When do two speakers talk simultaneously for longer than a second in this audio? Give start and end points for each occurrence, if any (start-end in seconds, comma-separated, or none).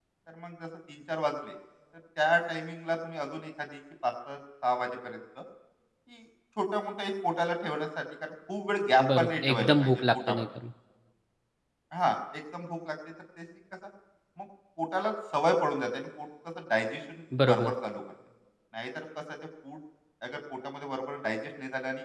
9.2-10.4